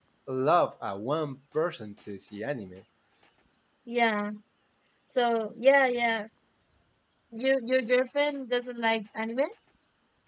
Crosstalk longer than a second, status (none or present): none